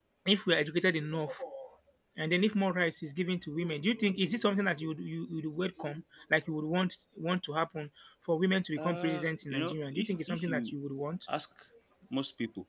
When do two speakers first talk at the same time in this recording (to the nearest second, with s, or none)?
9 s